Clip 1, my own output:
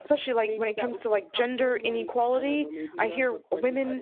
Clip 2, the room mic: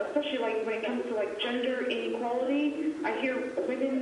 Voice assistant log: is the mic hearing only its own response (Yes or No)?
Yes